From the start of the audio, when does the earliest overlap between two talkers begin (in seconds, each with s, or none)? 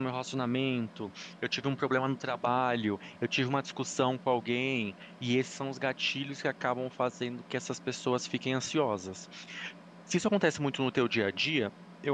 none